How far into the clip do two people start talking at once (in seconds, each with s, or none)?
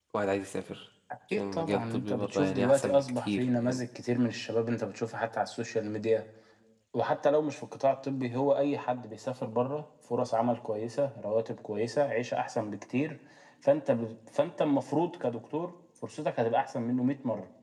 1.3 s